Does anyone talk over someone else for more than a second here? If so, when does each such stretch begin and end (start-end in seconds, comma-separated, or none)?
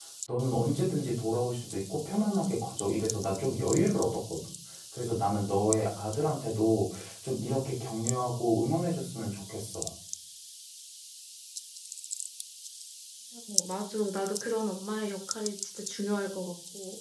none